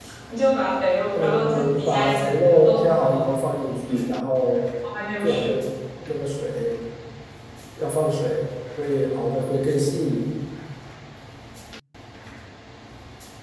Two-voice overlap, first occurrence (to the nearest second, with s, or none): 1 s